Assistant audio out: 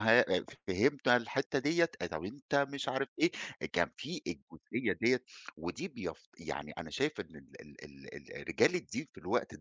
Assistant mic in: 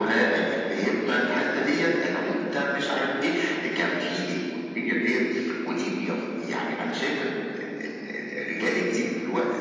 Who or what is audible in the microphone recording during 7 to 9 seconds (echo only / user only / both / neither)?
echo only